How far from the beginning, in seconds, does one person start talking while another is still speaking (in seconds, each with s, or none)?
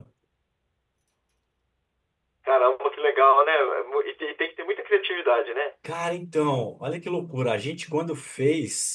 none